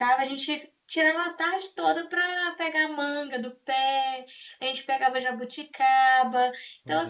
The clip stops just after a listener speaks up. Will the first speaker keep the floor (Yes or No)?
Yes